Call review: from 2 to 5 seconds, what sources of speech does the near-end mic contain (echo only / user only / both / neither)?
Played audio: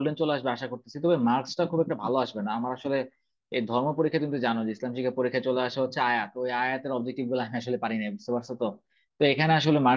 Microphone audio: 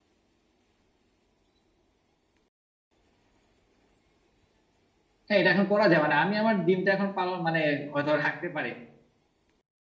neither